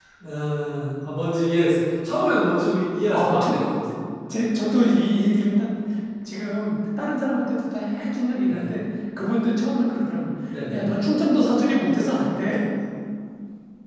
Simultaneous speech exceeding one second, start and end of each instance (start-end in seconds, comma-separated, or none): none